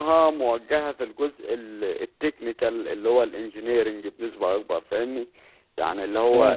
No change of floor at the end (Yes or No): Yes